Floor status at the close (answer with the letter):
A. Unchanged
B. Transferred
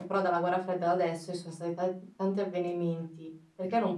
A